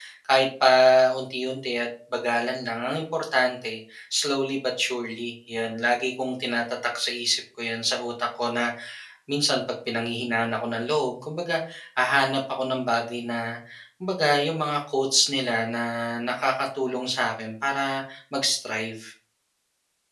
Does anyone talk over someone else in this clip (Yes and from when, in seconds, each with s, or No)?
No